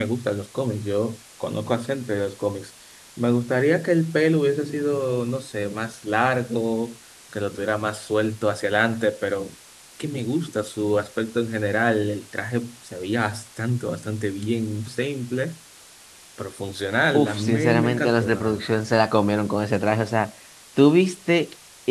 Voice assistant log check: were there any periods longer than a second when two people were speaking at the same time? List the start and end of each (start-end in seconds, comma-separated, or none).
17.2-18.6